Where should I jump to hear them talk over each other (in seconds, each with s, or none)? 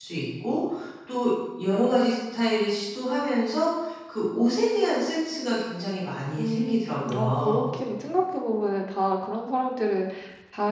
6.4 s